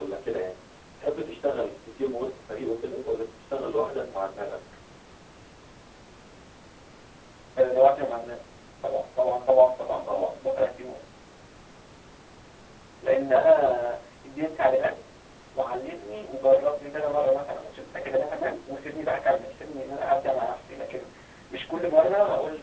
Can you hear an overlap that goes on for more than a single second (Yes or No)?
No